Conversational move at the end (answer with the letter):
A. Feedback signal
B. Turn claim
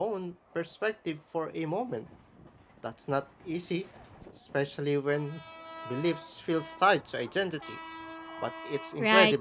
B